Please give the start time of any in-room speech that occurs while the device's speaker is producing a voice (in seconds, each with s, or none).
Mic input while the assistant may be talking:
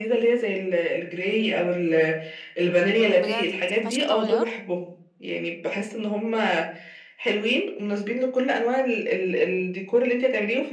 3.1 s